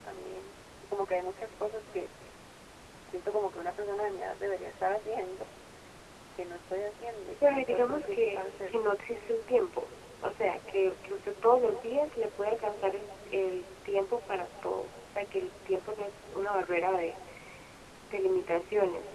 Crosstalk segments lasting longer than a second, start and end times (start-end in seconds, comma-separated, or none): 7.4-8.9